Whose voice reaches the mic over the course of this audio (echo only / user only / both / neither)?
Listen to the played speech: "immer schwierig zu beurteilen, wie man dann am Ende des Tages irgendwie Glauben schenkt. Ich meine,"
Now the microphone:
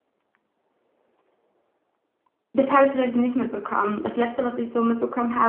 user only